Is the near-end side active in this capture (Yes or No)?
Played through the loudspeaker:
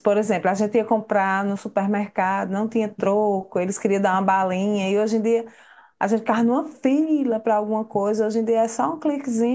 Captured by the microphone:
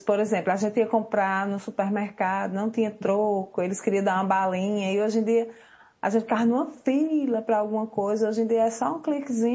No